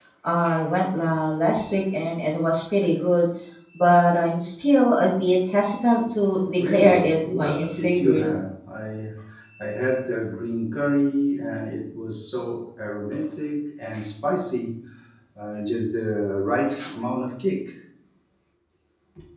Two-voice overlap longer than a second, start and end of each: 6.6-8.3

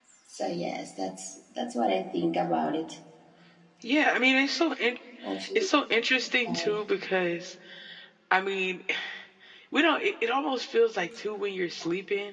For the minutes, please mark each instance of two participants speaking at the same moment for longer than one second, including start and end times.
none

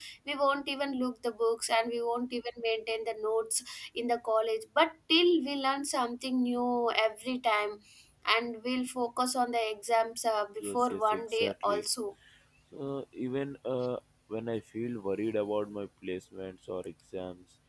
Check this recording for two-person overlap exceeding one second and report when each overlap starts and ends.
10.6-11.8

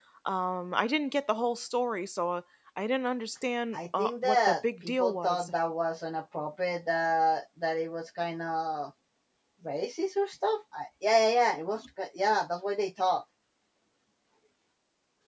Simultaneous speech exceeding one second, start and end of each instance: 3.7-5.5

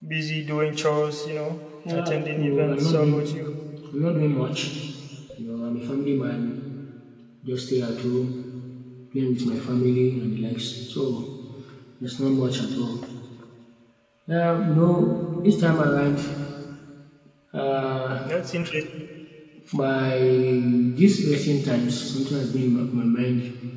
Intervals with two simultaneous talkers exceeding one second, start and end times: 1.9-3.2

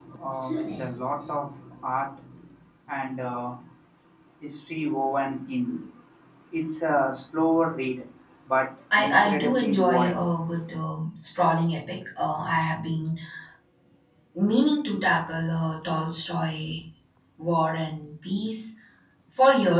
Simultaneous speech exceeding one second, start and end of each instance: 9.0-10.2

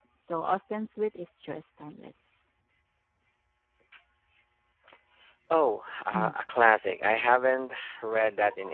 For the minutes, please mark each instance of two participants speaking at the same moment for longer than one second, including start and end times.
none

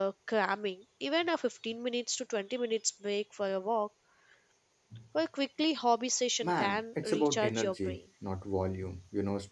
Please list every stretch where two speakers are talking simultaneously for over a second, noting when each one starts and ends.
6.4-8.0

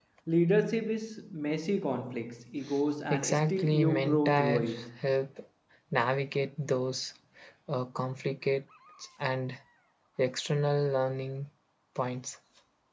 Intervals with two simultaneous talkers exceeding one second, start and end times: 3.1-4.9

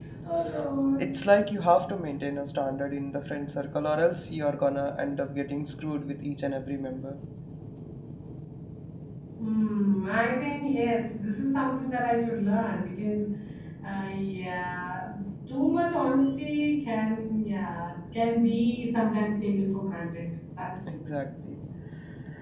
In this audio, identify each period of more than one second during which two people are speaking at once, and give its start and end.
none

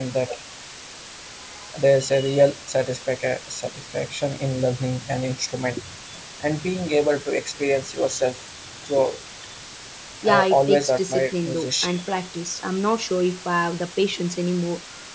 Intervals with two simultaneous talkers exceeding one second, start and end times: 10.3-12.0

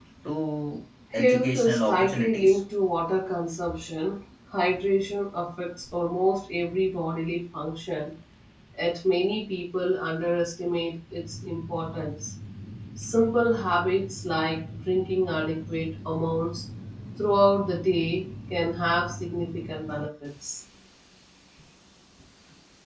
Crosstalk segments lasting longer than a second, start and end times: 1.1-2.6

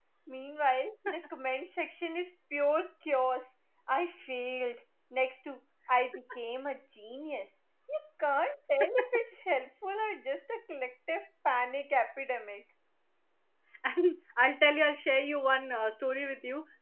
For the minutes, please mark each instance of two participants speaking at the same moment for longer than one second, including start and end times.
none

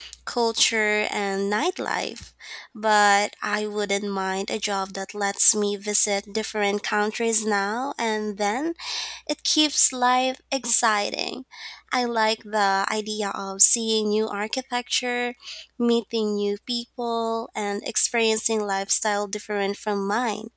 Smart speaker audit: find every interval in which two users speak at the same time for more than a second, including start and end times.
none

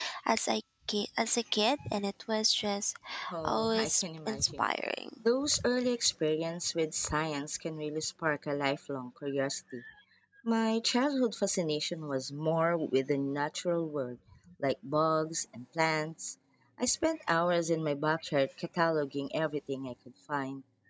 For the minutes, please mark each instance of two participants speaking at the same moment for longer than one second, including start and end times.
3.4-4.6

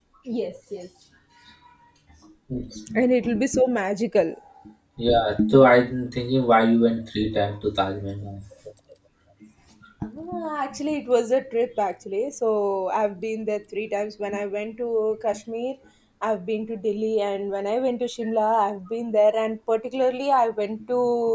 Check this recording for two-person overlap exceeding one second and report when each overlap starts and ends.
none

